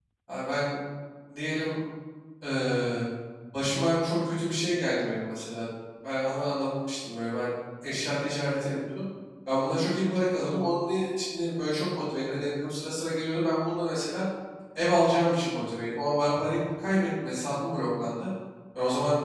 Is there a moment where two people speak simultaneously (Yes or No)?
No